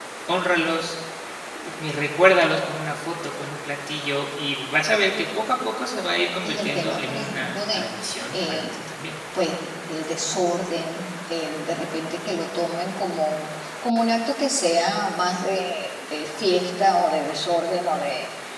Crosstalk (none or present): present